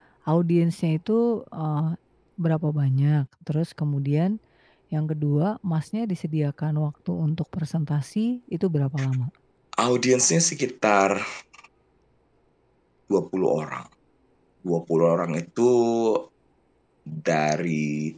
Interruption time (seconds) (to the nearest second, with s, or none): none